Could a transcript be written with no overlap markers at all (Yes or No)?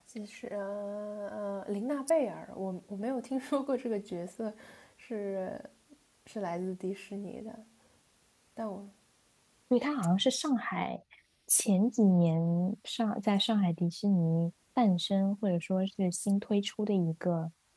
Yes